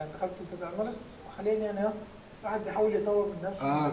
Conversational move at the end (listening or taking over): taking over